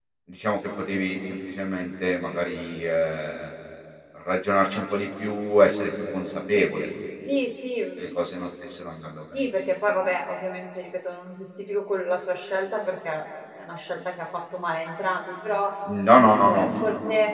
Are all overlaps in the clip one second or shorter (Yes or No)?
Yes